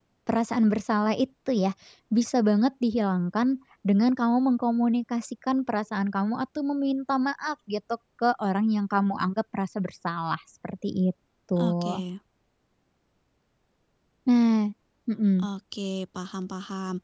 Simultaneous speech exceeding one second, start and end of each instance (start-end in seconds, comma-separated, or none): none